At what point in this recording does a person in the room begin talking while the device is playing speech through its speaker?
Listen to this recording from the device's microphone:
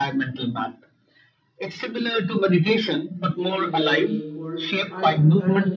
3.4 s

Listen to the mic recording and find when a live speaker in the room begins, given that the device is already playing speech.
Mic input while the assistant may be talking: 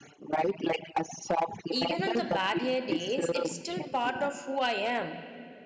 1.7 s

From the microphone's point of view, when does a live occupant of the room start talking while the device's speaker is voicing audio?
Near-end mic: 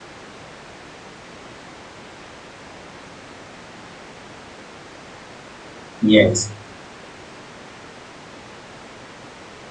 6.0 s

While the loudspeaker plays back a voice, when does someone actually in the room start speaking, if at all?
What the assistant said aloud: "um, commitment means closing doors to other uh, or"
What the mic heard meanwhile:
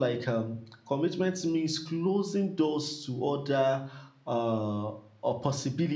none

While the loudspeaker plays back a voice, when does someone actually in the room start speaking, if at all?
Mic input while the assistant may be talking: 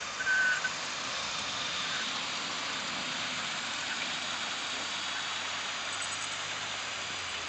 none

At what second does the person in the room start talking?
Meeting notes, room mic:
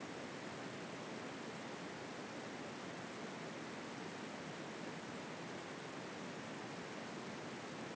none

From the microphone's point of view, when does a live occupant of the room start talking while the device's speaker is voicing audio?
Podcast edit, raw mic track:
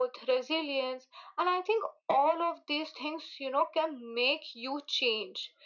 none

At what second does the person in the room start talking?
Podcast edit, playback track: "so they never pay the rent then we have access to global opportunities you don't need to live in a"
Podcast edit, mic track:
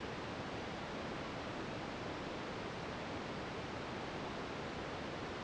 none

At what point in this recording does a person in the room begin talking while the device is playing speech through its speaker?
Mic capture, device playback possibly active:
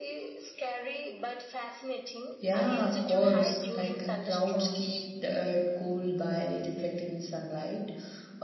2.4 s

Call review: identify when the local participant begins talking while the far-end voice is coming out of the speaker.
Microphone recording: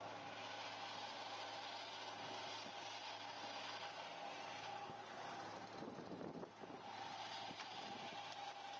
none

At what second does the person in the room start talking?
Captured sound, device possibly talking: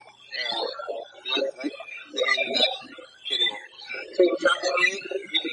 none

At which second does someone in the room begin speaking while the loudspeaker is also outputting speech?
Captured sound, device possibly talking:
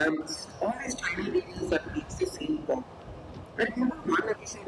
none

